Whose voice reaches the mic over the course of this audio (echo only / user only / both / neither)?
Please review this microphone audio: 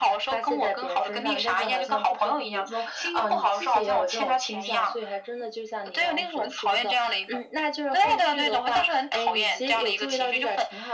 echo only